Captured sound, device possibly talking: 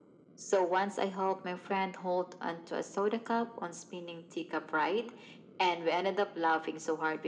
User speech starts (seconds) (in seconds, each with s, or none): none